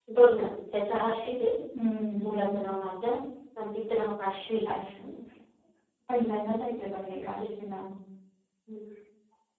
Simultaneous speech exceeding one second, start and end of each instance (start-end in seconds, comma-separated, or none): none